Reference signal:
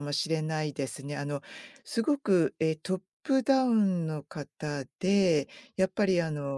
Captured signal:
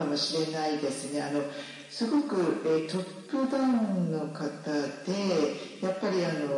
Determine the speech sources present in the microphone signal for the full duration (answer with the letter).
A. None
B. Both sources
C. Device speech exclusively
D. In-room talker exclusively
C